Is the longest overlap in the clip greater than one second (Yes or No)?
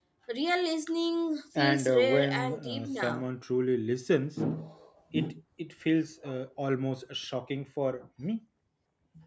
Yes